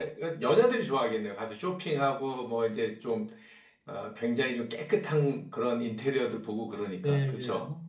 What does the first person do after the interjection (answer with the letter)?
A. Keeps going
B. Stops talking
B